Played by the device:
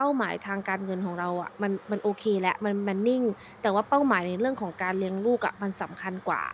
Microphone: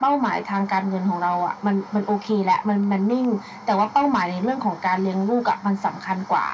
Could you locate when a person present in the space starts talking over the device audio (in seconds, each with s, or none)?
none